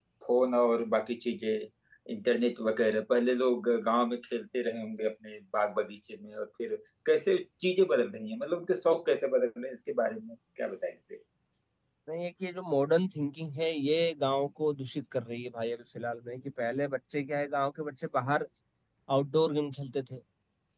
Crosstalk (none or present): none